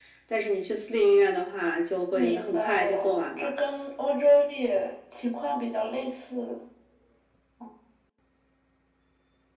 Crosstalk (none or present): present